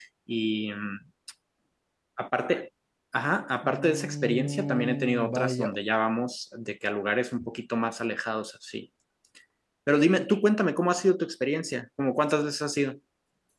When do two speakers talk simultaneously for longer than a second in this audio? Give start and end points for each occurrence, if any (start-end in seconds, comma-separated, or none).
3.6-5.7